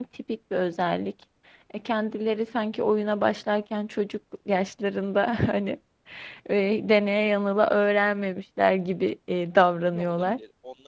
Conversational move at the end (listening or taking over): taking over